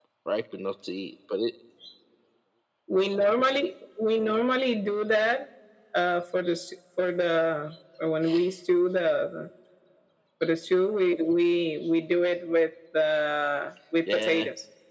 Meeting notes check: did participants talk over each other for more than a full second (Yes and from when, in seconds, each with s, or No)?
No